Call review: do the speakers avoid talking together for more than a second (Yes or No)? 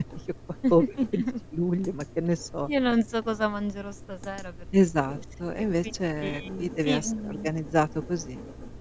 No